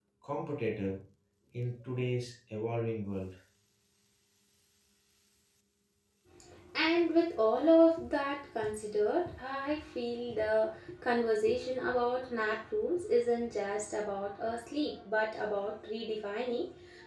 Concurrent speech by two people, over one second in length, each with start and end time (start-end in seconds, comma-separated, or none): none